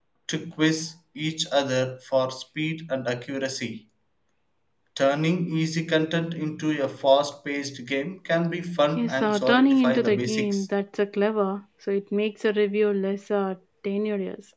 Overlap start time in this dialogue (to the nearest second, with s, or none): 9 s